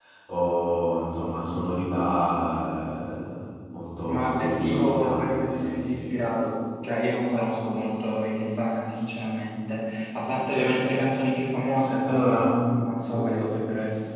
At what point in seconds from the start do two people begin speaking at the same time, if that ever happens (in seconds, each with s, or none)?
4.1 s